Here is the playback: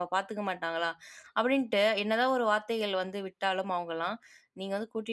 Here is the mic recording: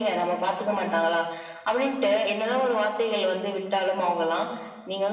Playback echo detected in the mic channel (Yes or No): Yes